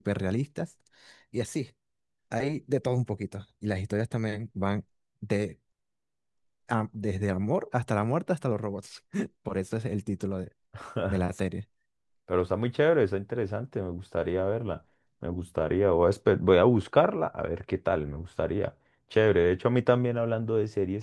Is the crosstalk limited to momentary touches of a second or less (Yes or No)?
Yes